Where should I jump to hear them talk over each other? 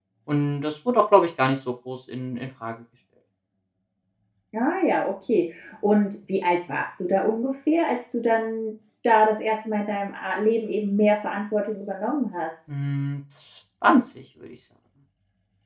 none

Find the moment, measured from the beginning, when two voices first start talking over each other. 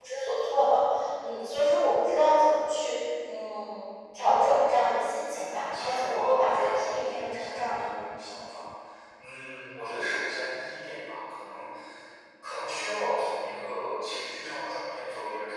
5 s

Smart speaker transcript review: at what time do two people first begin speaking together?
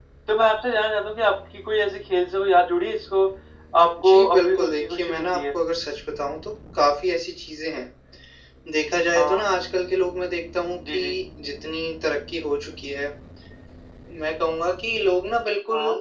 4 s

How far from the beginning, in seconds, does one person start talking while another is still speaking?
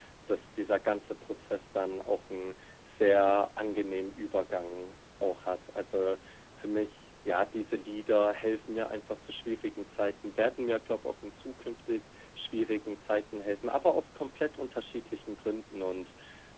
none

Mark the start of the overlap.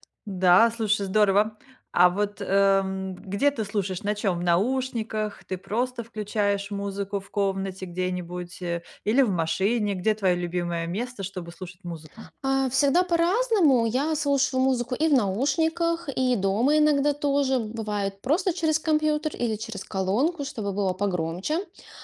none

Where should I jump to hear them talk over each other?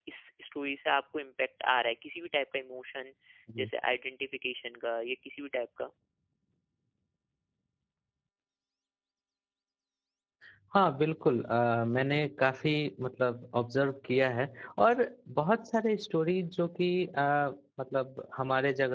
none

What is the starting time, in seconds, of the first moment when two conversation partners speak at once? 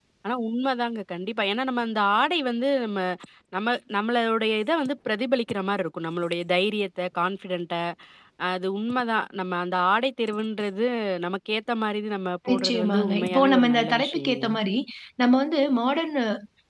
12 s

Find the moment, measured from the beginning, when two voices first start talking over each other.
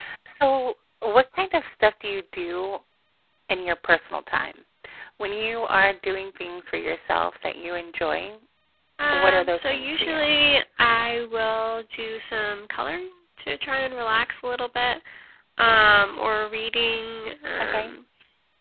9 s

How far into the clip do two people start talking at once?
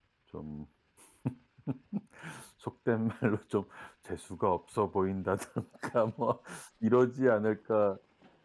none

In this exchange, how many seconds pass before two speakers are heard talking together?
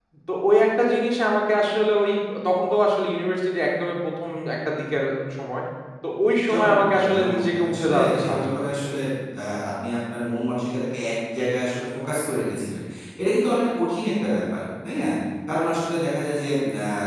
7 s

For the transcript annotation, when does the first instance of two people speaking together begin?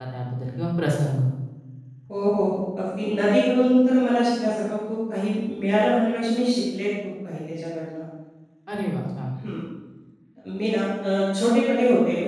none

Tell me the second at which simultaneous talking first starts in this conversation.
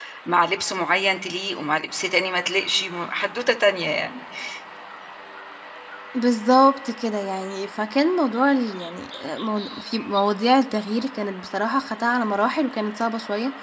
none

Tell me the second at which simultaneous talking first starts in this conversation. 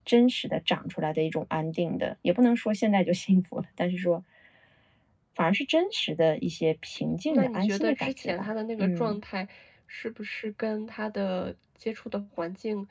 7 s

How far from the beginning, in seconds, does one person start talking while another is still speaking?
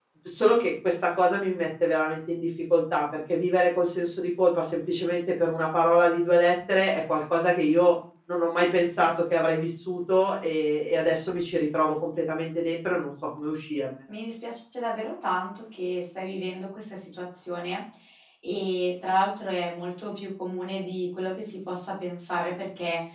none

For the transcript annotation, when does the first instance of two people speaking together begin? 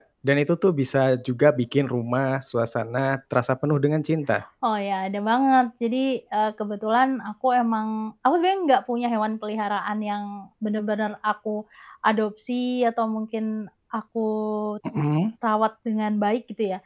none

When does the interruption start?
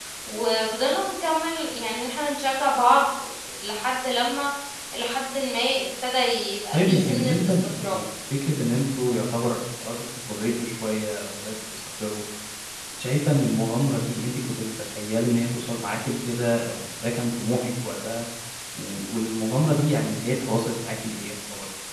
7 s

